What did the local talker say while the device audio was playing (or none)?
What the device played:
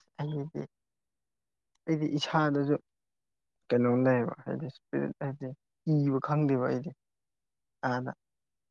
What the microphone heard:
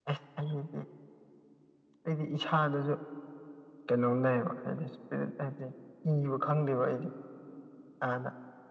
none